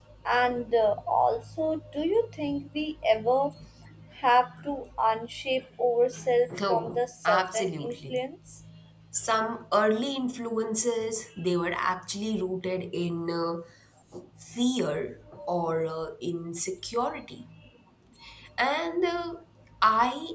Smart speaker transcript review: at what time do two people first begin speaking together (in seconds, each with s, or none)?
6.5 s